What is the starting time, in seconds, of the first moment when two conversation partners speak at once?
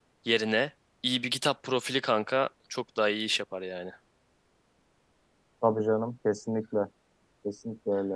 none

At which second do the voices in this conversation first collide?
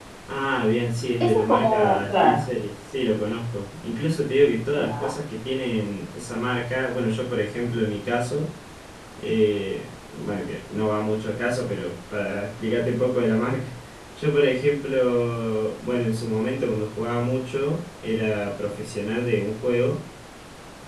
1.2 s

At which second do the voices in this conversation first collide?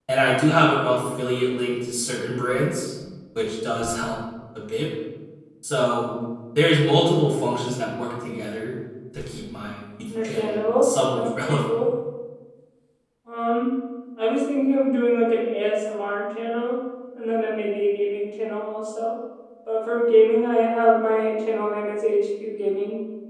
10.1 s

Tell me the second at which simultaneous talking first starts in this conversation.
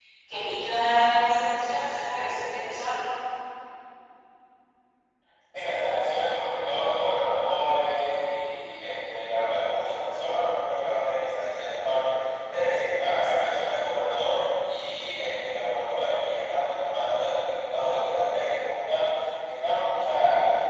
none

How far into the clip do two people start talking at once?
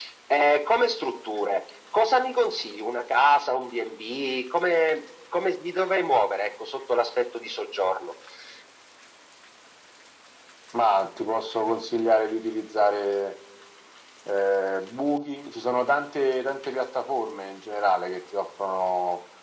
none

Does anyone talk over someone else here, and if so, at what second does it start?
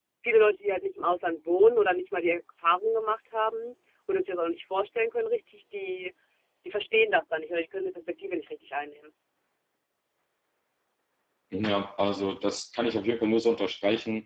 none

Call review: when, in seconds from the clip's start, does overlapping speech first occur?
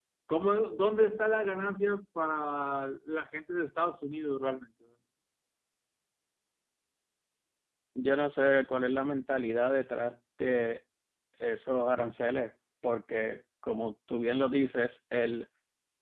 none

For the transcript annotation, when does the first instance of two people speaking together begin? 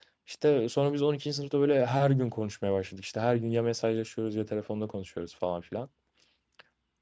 none

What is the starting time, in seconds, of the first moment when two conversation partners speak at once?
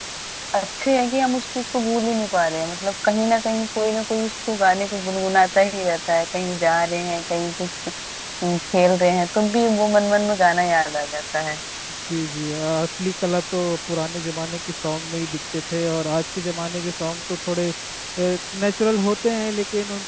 none

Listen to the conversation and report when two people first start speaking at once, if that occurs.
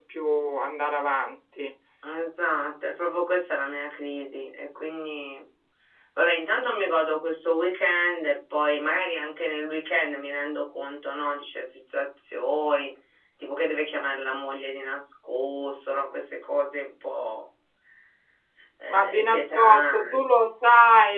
18.9 s

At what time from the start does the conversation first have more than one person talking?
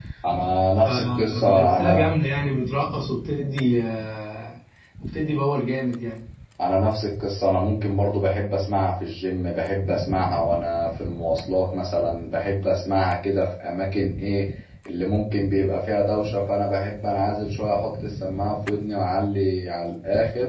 0.8 s

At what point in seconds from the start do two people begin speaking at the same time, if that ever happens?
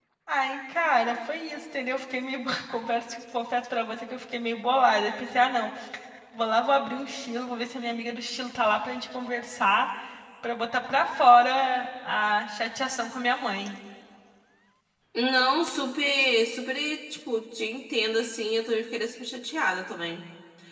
none

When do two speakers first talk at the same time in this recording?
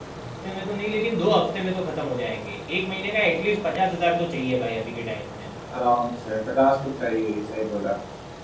none

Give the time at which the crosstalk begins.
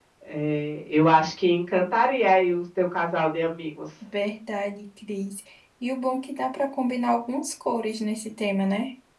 none

